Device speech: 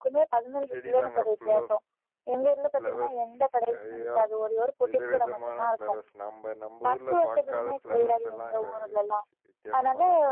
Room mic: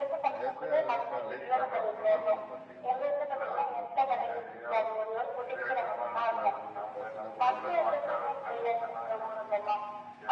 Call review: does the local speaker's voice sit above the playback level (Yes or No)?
No